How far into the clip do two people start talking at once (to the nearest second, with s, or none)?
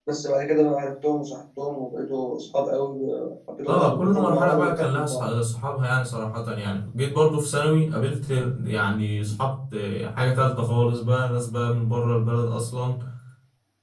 4 s